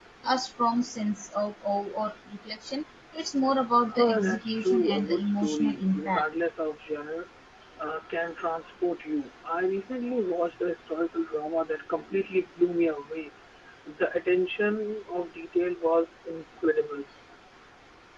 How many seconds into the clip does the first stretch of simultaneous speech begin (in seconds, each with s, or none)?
3.9 s